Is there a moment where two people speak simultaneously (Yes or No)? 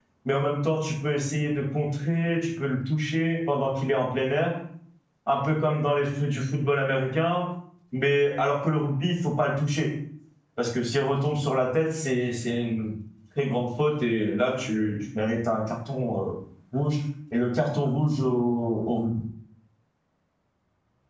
No